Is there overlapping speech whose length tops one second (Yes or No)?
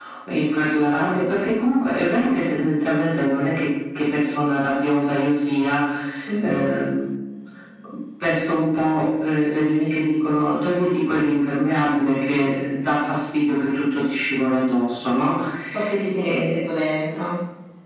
No